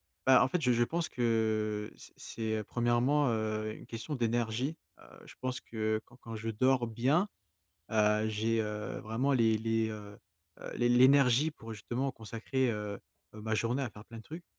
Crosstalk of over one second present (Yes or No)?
No